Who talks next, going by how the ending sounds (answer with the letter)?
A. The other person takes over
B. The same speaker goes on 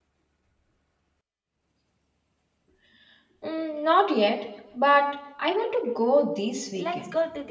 A